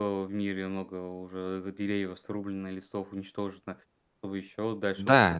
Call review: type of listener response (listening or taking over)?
taking over